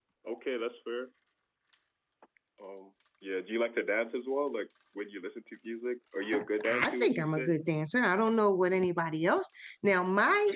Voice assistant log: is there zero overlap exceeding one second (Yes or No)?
No